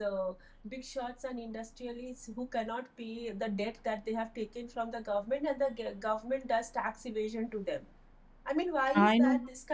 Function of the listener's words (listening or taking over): listening